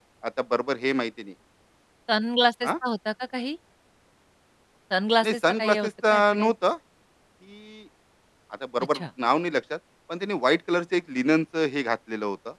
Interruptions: present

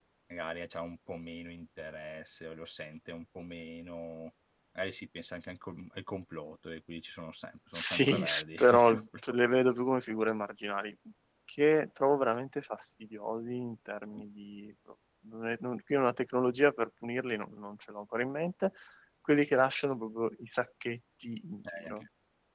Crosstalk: present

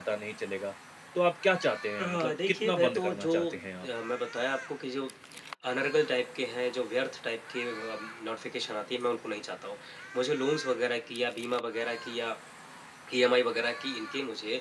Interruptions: present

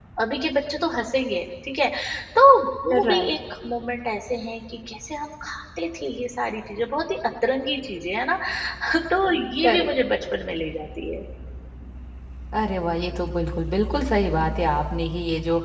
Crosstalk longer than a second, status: none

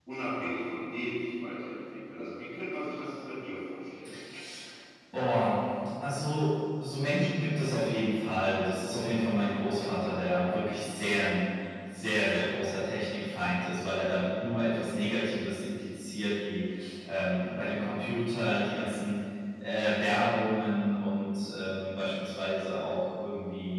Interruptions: none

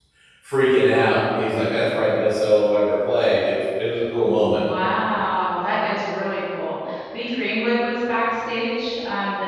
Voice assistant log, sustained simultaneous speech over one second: none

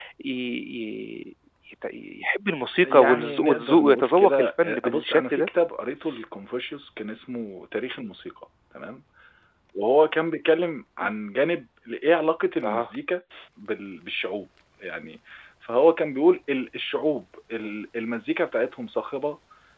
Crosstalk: present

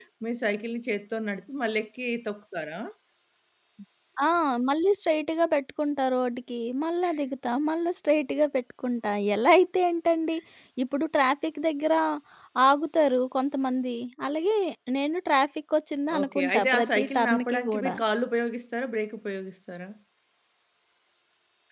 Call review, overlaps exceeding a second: present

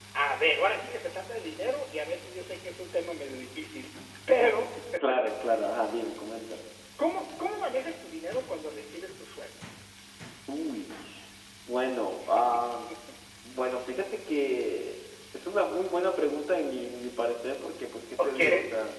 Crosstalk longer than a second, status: none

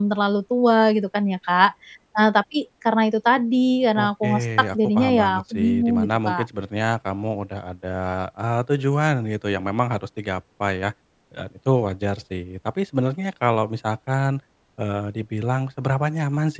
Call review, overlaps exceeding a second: present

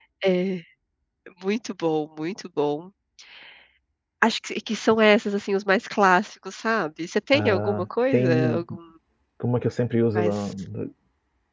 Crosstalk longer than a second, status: present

